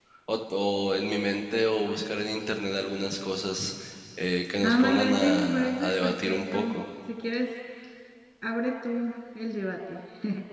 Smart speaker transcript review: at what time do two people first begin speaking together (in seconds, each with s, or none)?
4.6 s